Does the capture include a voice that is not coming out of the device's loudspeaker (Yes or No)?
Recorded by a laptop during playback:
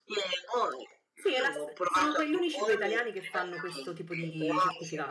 Yes